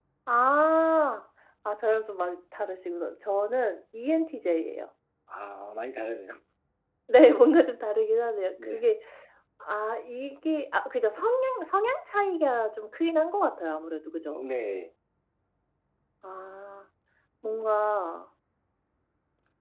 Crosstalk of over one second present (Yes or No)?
No